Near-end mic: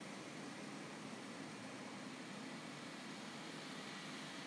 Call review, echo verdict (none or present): none